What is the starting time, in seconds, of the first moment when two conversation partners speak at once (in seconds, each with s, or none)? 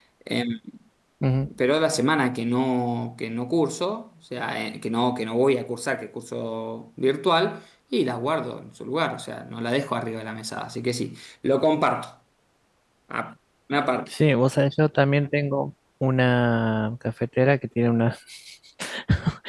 none